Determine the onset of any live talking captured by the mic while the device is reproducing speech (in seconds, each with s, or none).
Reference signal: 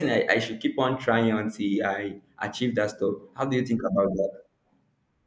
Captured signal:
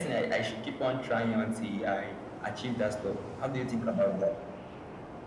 none